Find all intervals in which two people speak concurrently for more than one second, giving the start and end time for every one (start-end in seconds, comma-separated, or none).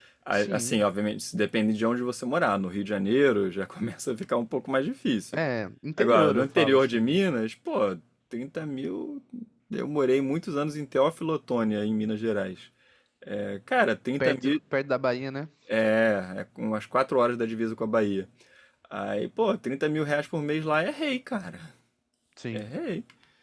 6.0-7.2